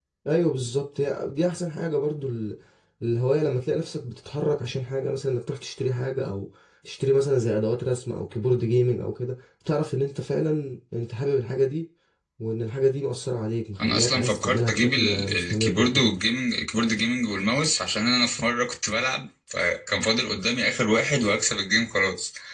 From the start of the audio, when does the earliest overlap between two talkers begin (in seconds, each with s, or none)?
13.8 s